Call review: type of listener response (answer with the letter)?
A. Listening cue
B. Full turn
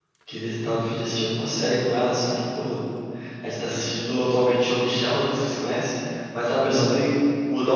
A